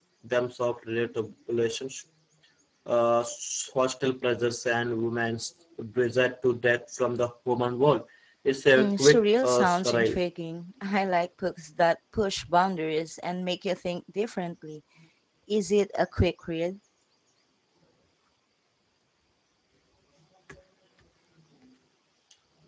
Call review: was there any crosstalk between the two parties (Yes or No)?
Yes